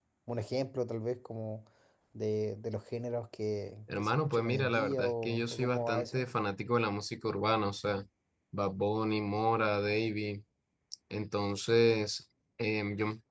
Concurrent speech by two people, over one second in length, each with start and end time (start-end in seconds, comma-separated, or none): 4.0-6.2